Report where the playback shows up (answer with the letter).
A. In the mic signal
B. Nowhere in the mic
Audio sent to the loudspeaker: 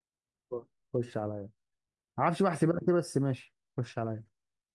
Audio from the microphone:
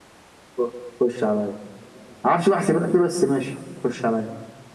A